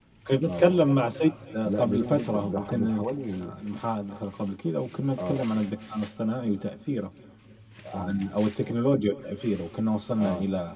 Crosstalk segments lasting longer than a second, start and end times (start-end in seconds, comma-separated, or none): 1.8-3.0